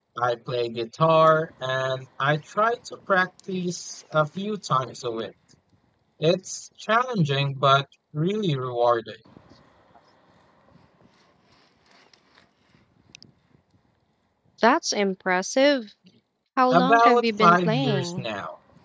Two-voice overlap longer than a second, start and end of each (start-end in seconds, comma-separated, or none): 16.7-18.2